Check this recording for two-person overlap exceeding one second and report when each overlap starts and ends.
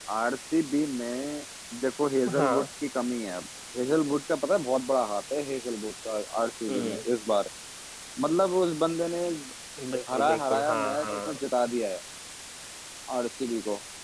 10.1-11.4

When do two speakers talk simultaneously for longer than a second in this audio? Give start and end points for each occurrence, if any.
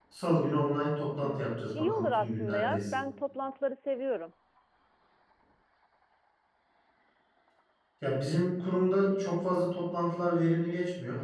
1.2-2.8

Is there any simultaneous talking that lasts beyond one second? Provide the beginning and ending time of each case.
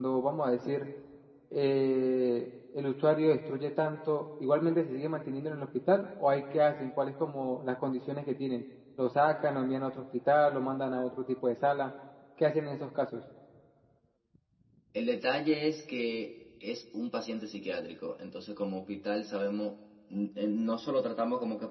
none

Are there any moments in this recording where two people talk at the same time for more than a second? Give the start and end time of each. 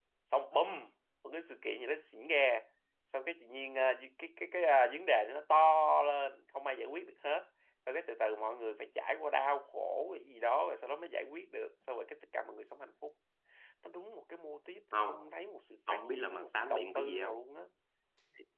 15.9-17.4

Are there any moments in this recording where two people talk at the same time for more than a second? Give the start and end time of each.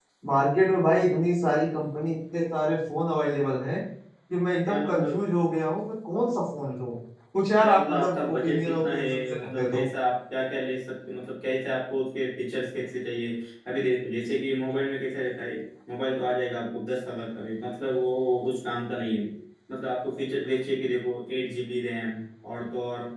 7.6-9.9

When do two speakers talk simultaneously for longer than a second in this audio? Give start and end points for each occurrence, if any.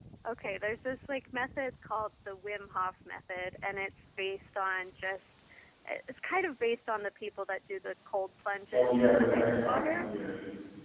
8.7-10.1

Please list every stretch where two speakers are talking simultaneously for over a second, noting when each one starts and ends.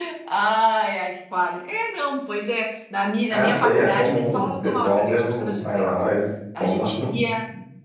3.3-6.0

